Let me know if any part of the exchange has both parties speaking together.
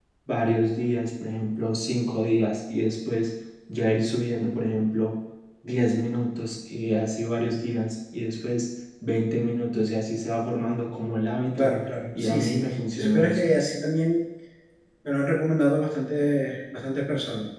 Yes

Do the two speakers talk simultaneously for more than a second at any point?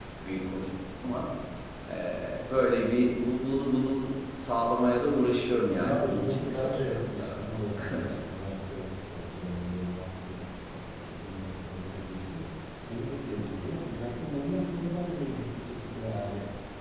Yes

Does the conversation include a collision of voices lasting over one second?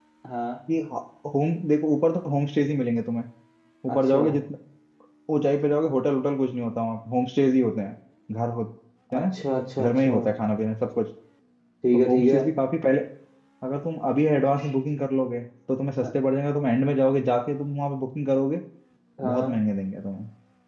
No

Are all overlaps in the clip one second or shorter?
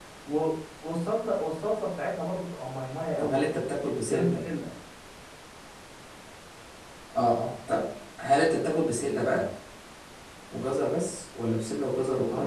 Yes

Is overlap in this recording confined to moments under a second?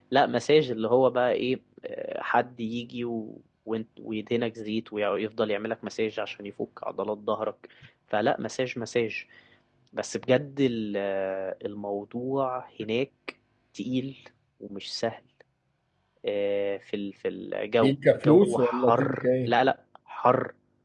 No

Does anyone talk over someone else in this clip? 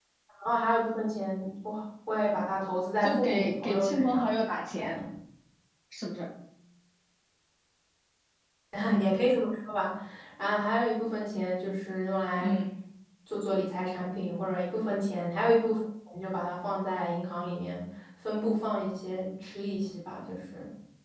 Yes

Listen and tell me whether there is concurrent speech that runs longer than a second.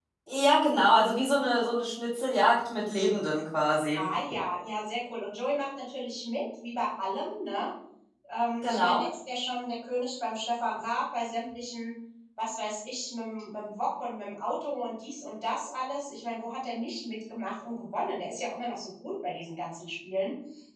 No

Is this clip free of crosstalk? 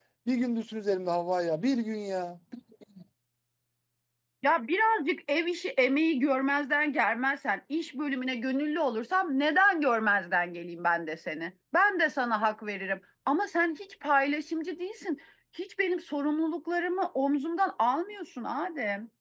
Yes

